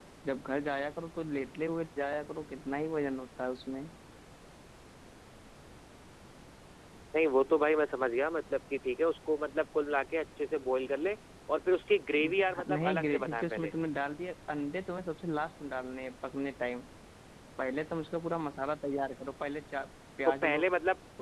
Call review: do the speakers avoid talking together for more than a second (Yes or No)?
No